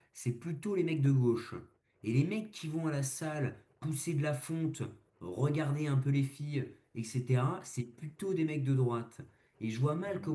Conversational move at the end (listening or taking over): listening